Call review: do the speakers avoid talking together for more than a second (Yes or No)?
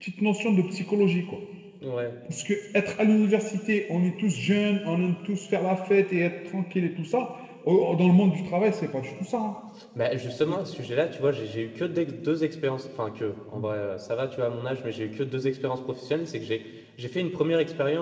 Yes